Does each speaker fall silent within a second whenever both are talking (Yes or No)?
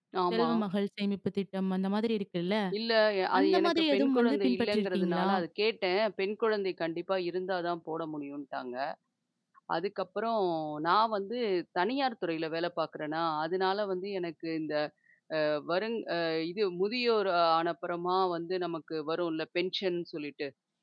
No